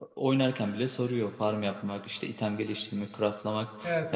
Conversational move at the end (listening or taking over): listening